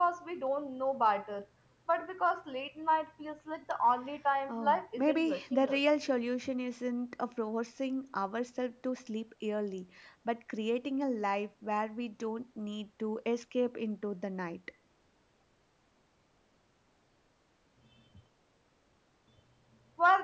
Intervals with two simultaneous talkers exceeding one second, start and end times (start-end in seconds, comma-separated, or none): 4.5-5.8